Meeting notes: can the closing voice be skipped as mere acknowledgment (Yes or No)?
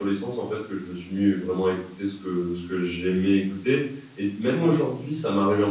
Yes